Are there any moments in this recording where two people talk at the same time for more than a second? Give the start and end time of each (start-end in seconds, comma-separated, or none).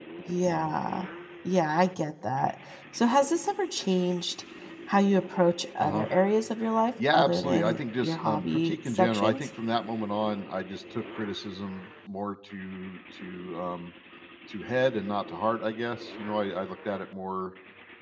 7.1-9.5